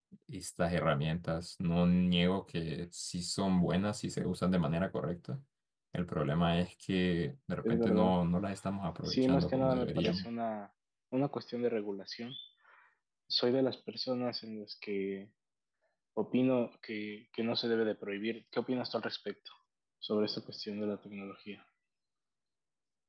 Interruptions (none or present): present